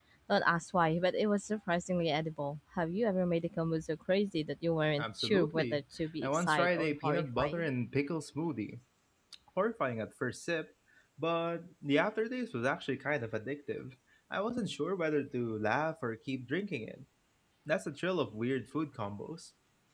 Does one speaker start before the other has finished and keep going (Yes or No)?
Yes